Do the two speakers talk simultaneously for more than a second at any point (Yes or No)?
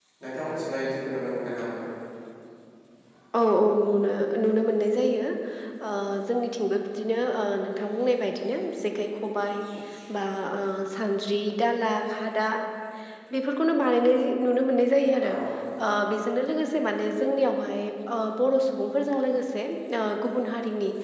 No